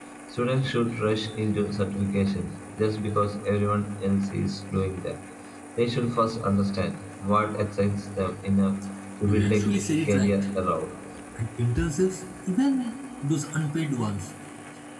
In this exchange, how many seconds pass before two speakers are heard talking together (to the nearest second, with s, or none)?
9 s